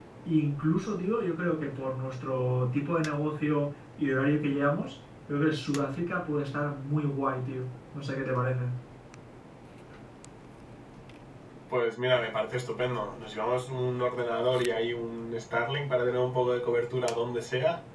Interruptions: none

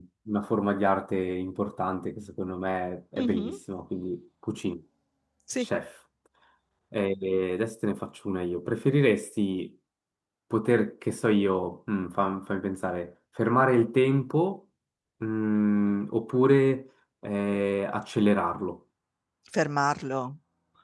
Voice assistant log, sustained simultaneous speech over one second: none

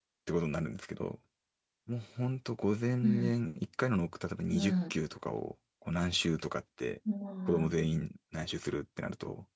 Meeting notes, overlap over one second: none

